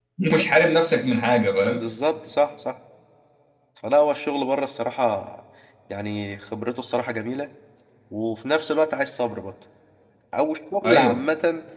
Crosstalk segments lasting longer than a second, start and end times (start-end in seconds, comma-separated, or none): none